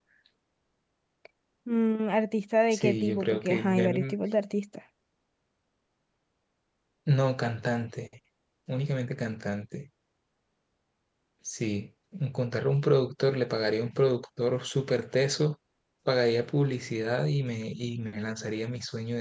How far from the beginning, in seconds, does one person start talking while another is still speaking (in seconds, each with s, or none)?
2.7 s